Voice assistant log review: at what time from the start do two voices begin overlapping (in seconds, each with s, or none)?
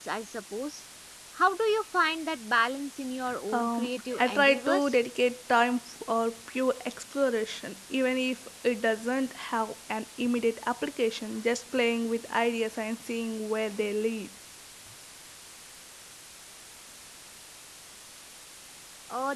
3.5 s